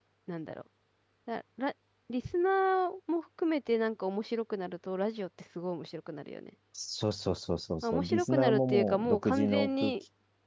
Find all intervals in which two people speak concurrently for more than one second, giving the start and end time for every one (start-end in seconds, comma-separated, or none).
7.8-9.9